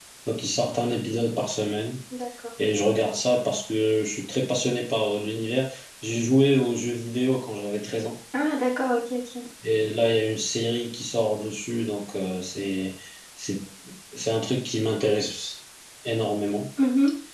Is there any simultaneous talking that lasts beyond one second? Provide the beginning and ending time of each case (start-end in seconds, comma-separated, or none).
none